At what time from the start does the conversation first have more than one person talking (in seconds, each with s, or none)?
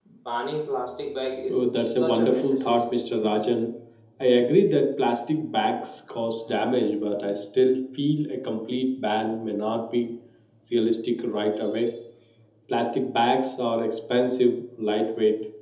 1.5 s